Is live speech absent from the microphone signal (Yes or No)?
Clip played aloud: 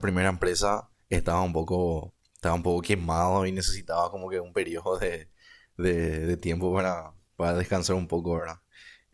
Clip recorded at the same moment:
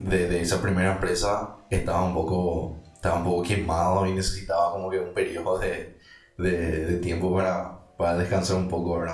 Yes